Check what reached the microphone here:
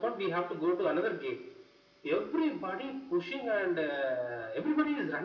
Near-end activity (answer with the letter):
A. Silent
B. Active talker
A